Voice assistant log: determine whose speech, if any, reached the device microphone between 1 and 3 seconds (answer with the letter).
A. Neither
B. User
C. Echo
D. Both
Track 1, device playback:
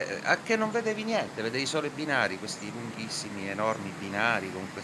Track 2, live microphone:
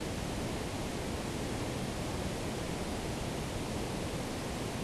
A